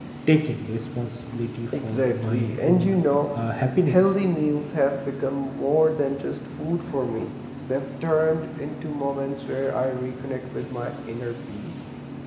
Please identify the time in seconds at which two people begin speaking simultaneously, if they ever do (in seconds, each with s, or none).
1.7 s